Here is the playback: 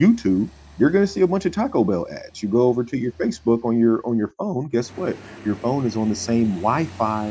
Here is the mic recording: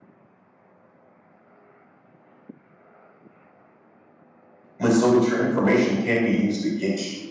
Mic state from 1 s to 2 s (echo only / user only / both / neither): neither